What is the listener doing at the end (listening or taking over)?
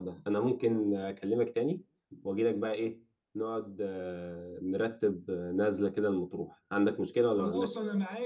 taking over